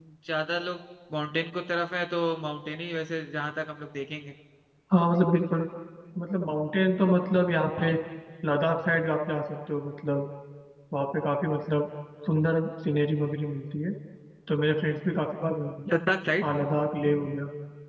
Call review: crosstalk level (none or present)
none